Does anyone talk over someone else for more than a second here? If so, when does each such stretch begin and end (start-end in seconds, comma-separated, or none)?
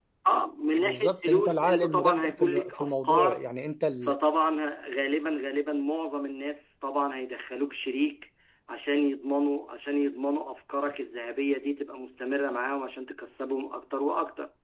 0.8-3.4